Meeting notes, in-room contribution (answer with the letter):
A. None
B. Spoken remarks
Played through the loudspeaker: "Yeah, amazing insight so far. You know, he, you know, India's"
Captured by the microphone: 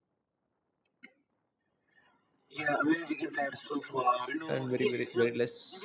B